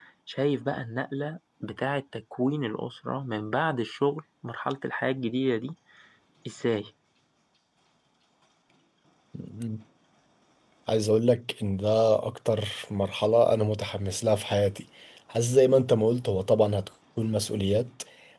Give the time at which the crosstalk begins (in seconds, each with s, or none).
none